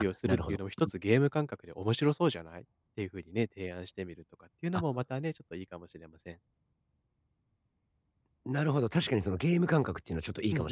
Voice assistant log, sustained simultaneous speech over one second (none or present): none